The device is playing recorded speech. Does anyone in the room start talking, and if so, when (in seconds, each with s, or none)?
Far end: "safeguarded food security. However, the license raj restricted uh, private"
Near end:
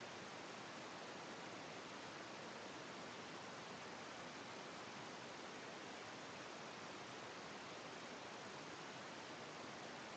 none